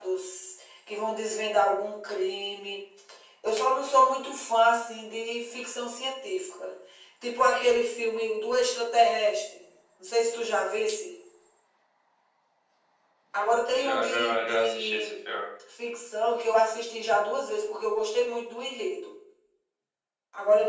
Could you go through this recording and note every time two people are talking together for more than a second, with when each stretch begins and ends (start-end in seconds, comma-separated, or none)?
13.8-15.1